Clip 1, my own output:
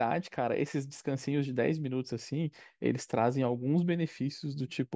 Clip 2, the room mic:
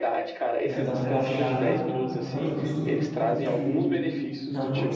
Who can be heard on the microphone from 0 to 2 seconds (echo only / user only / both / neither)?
both